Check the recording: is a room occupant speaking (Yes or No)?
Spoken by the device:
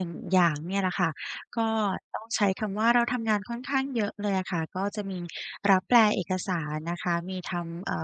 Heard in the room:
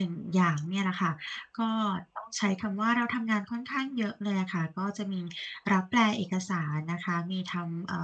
No